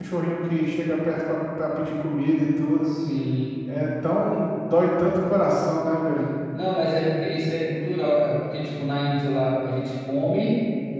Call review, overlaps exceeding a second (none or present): none